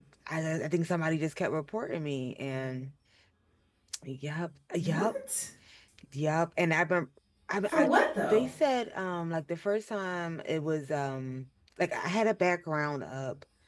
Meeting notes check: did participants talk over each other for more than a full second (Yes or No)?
No